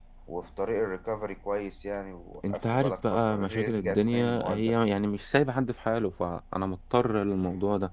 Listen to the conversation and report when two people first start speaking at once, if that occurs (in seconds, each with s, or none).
2.4 s